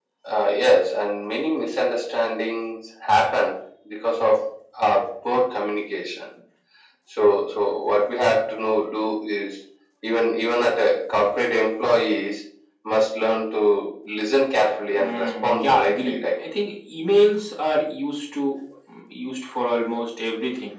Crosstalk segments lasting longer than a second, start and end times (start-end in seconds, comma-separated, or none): 14.9-16.3